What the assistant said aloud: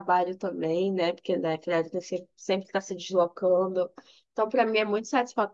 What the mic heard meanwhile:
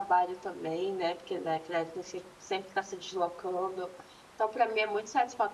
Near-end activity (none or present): none